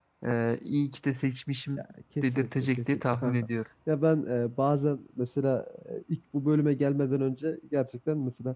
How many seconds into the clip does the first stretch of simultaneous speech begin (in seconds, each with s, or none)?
2.2 s